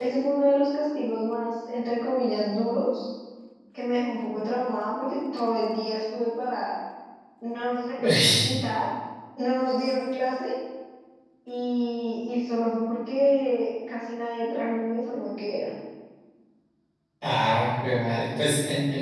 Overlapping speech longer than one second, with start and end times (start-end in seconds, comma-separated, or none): none